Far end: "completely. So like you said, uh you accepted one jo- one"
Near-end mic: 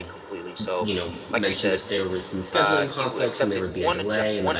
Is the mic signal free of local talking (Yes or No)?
No